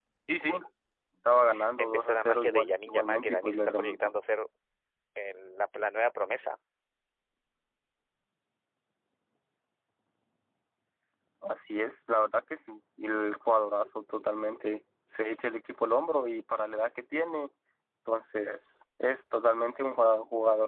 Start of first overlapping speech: 1.8 s

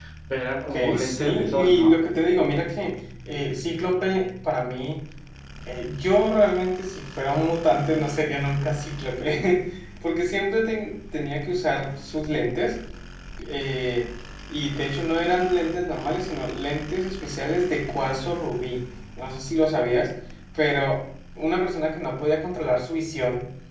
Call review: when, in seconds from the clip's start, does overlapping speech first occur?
0.6 s

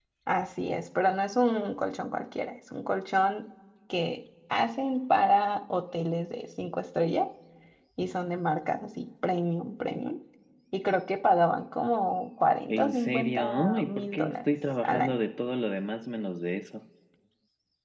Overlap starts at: 12.7 s

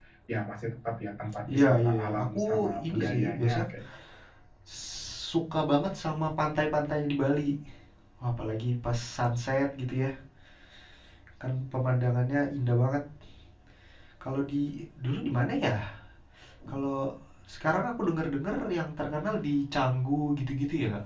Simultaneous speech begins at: 1.5 s

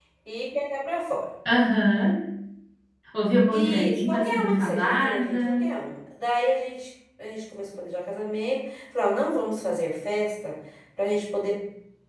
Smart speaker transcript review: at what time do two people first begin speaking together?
3.5 s

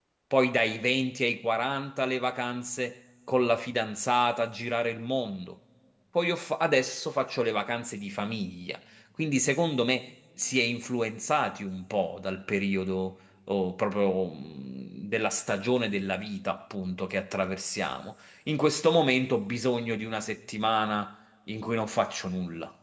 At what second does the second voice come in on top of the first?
none

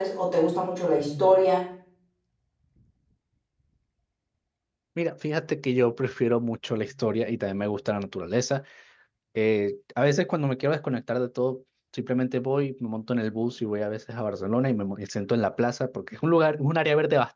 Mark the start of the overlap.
none

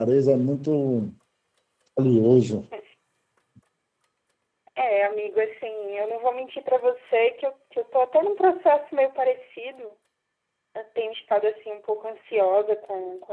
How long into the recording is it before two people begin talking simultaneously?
none

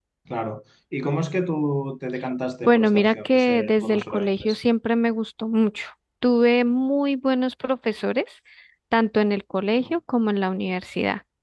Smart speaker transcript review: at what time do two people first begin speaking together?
2.6 s

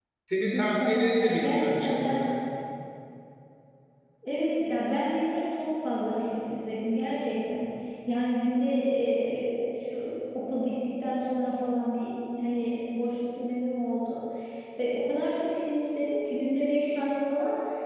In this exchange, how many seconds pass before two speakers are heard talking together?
0.5 s

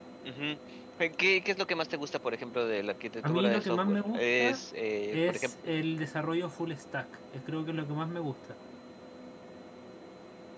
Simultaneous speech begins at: 3.2 s

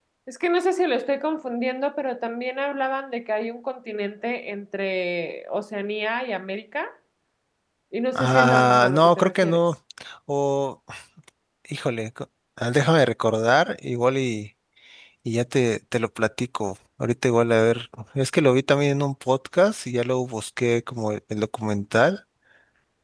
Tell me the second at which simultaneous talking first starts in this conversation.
8.2 s

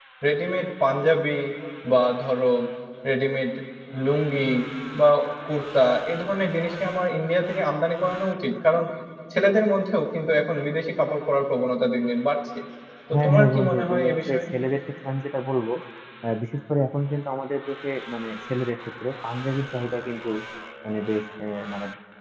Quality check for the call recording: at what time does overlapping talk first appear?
13.1 s

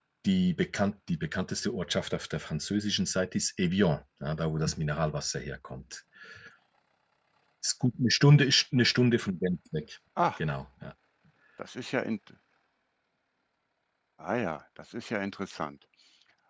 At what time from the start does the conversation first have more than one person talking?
none

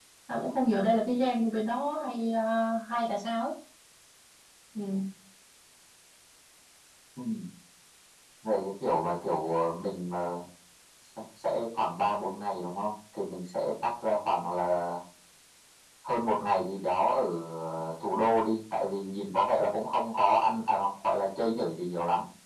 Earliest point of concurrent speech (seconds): none

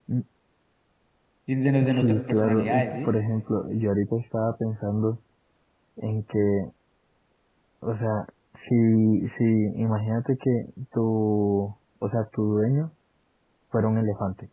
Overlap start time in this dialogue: 1.8 s

